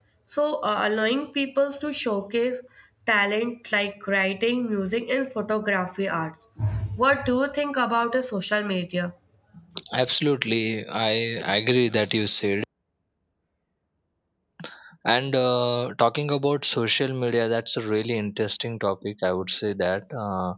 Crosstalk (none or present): none